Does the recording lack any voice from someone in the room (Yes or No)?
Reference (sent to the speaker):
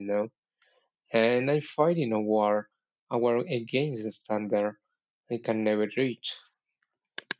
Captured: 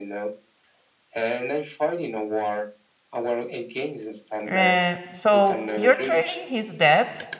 No